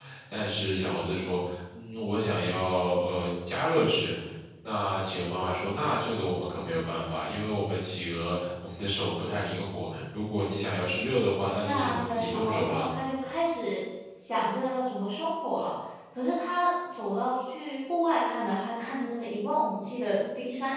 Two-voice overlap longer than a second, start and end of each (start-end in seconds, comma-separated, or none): 11.6-12.9